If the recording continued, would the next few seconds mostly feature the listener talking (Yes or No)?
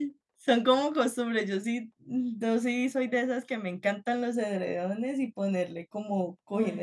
Yes